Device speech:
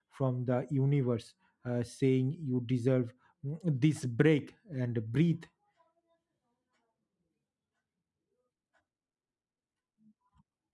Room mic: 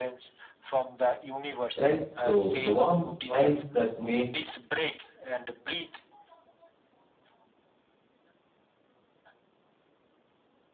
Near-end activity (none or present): present